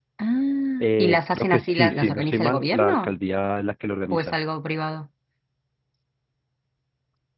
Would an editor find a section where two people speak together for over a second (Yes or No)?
Yes